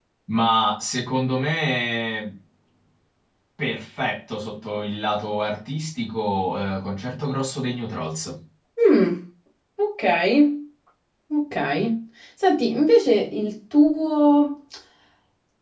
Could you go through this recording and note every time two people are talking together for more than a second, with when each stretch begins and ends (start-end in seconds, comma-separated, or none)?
none